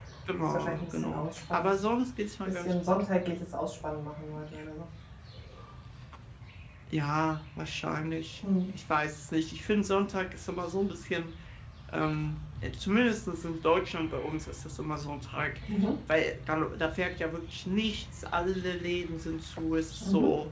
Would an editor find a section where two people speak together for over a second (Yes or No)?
Yes